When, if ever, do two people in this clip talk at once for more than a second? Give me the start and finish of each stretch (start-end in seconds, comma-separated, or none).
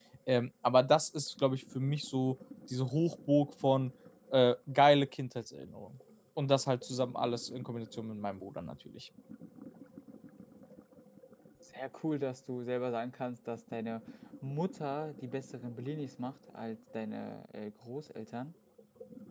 none